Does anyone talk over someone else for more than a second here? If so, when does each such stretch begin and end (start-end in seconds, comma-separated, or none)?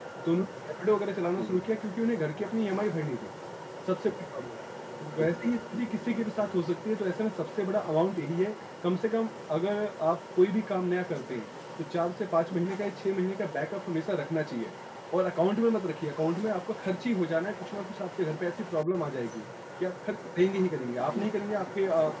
5.2-6.6